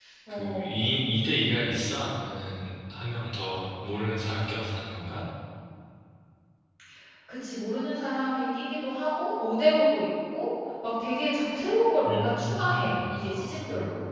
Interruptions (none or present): present